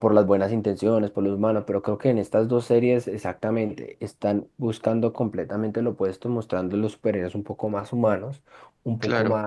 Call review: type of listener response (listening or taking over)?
listening